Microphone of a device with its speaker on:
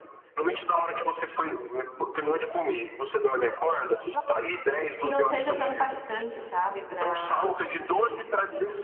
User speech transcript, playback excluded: que não seja tão impactante, sabe, para

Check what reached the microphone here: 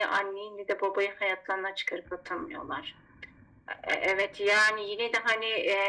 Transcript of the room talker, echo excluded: none

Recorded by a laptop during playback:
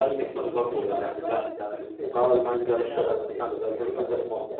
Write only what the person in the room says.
none

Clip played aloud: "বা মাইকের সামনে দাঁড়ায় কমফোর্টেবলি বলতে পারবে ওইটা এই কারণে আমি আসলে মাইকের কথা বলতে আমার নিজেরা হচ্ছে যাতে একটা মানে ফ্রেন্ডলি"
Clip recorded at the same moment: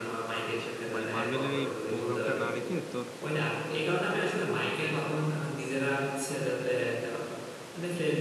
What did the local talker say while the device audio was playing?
মানে মার্বেলের এই প্রোগ্রামটা না রেখে তোর

